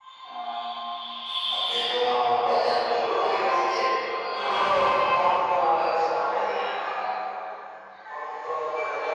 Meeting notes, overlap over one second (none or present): present